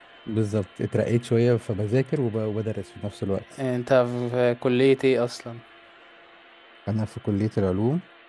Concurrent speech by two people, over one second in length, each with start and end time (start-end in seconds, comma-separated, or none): none